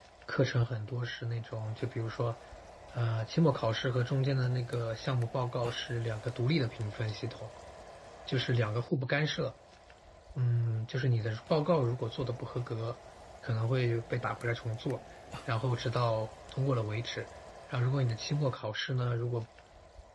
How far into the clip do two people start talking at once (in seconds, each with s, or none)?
none